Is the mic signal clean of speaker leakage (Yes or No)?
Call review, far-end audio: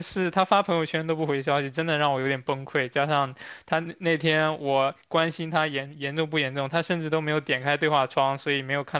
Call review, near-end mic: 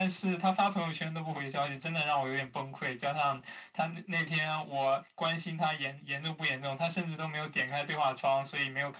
No